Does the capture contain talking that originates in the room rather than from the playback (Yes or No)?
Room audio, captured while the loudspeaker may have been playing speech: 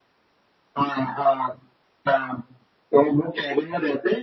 No